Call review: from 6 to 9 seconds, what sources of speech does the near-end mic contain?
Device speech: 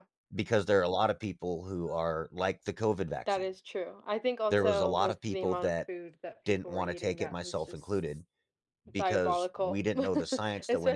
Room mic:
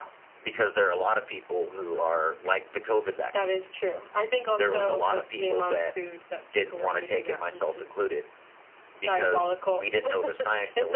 echo only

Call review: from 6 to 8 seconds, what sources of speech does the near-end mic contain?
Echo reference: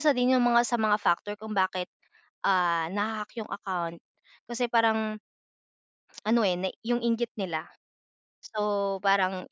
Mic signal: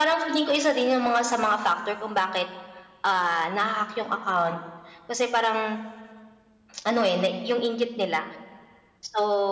echo only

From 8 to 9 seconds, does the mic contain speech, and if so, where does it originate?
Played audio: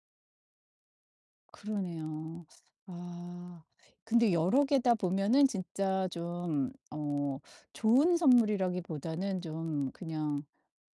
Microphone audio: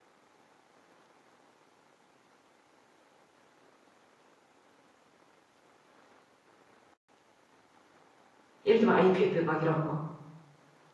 user only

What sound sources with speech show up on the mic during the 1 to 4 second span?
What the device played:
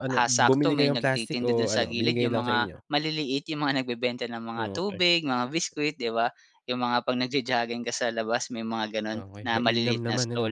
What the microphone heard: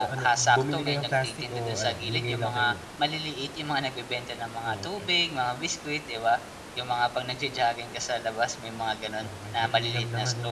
echo only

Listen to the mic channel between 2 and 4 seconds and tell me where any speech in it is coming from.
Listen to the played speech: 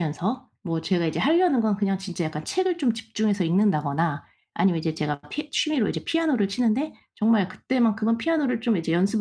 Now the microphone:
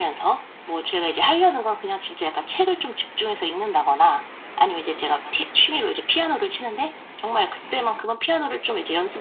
echo only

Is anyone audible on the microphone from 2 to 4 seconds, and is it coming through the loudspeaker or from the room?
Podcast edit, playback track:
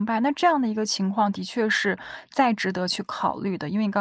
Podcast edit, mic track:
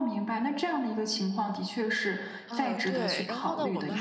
both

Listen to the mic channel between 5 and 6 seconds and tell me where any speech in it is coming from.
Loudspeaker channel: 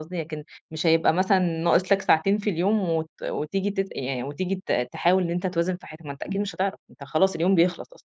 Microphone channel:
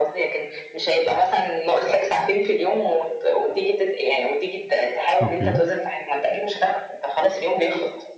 both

